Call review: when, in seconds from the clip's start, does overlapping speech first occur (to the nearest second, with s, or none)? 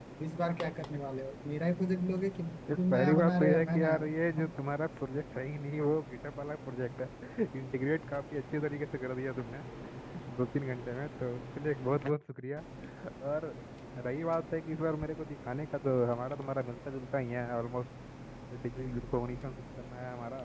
3 s